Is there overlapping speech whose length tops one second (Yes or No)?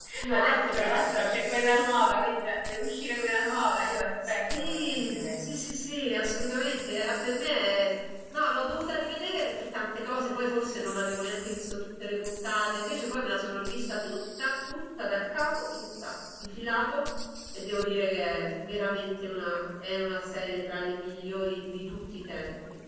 Yes